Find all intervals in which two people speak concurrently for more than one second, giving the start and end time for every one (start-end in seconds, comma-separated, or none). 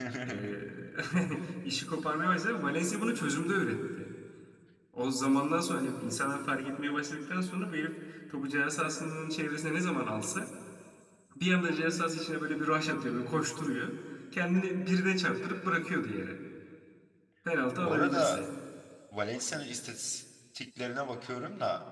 none